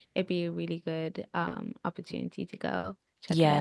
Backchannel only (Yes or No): No